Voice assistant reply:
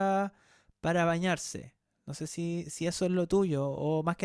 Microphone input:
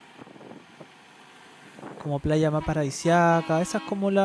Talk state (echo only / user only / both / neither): user only